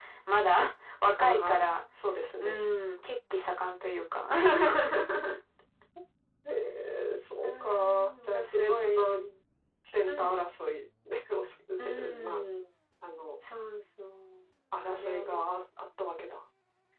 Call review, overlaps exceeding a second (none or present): present